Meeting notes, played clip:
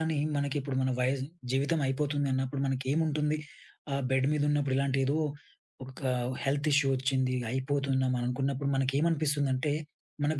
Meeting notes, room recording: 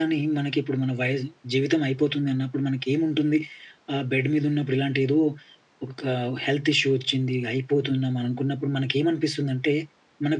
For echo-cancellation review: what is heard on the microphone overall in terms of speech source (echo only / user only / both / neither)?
echo only